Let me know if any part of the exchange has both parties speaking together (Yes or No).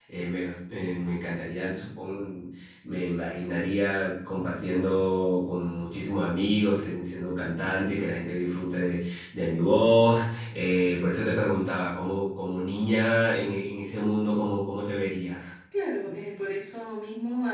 No